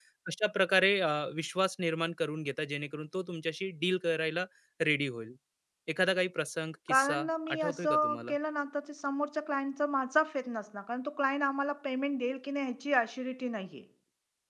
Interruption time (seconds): 6.9 s

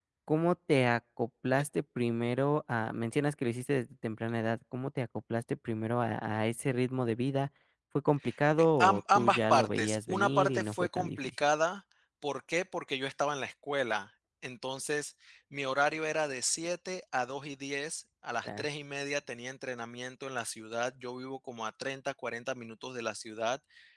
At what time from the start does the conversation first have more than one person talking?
8.8 s

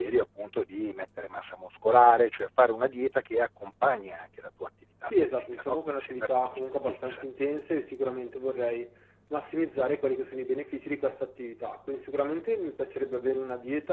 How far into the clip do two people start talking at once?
5.1 s

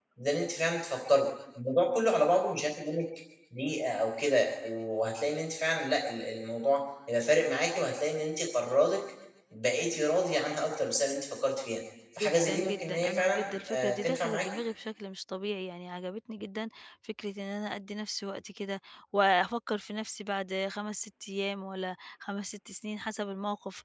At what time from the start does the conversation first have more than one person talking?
12.2 s

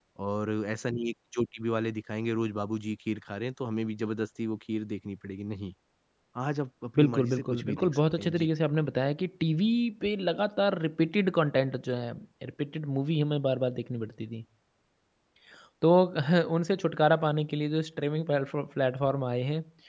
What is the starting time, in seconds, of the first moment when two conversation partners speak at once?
7.0 s

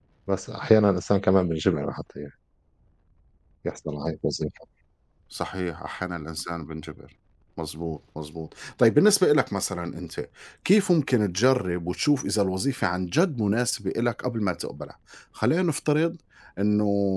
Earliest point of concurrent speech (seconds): none

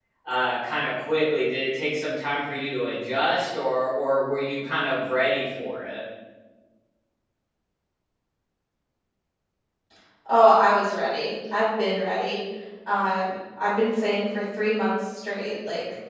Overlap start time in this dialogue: none

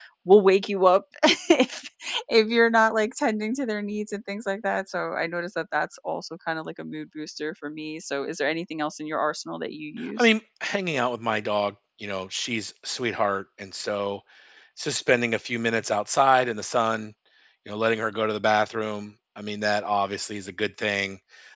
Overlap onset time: none

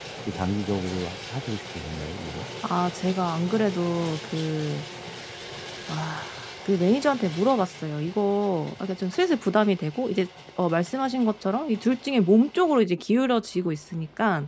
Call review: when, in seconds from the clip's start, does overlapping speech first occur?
none

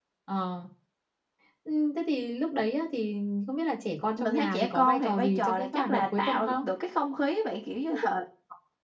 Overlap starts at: 4.2 s

